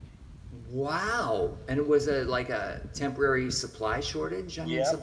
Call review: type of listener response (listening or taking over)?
taking over